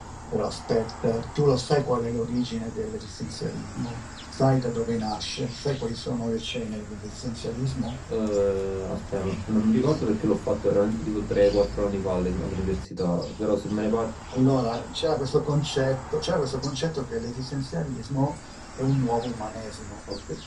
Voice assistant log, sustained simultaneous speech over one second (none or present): none